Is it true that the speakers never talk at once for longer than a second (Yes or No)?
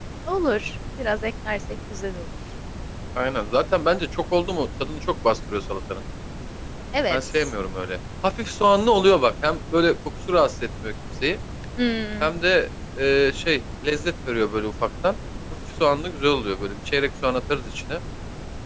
Yes